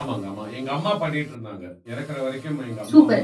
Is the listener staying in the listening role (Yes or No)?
No